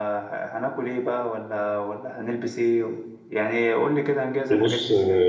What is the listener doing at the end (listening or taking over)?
taking over